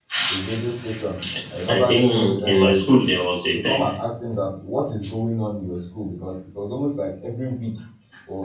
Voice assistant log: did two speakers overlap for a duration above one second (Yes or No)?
Yes